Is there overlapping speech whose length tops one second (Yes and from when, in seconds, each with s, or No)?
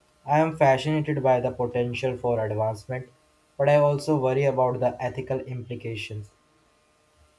No